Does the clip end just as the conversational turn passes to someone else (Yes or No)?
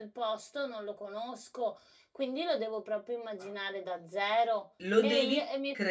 Yes